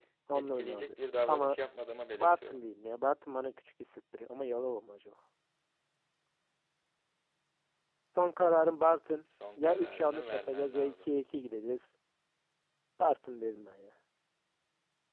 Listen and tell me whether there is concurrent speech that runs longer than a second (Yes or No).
Yes